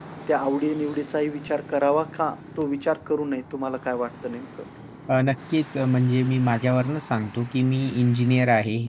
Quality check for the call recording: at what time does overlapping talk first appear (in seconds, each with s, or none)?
none